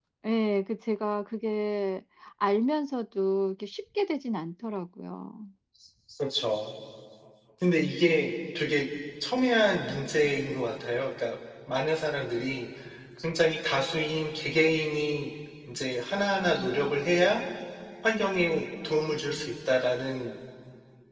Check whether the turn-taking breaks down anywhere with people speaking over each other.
No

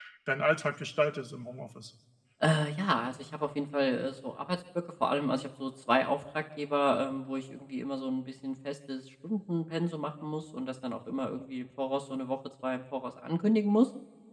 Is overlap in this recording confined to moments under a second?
Yes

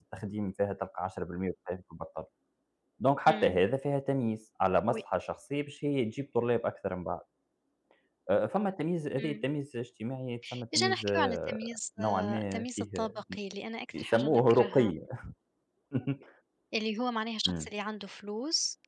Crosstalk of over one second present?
Yes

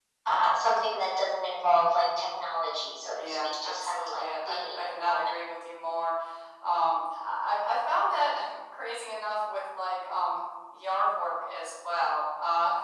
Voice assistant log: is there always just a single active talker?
No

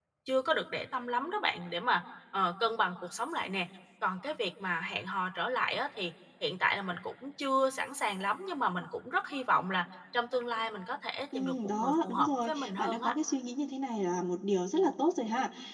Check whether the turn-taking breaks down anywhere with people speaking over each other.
Yes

